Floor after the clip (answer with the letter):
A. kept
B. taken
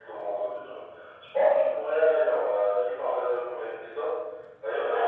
A